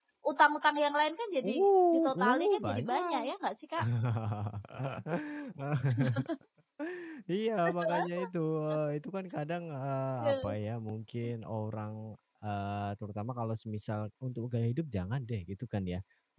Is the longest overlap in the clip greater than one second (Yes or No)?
Yes